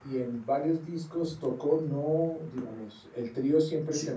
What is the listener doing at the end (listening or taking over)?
listening